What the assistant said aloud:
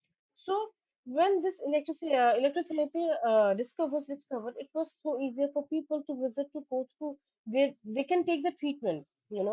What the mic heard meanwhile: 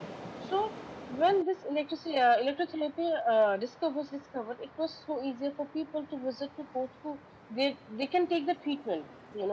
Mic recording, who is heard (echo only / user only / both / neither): echo only